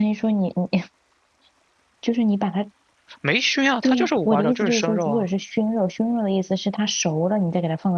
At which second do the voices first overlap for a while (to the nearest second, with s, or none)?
4 s